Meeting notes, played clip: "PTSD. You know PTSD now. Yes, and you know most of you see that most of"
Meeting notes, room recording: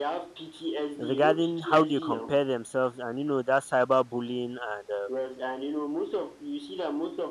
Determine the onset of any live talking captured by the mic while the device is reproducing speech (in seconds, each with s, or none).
1.0 s